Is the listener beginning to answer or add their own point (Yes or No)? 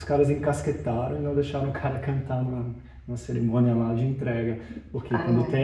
No